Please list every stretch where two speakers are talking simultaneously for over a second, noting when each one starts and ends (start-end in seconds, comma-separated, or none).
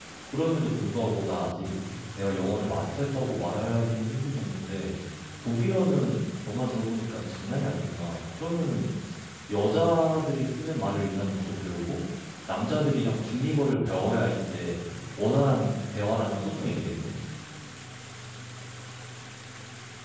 none